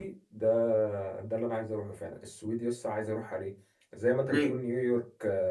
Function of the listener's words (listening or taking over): listening